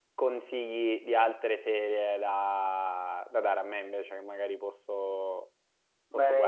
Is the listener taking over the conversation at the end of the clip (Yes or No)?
Yes